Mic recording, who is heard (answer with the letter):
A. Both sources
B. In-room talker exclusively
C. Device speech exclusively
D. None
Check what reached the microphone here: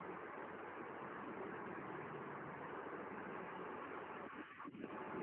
D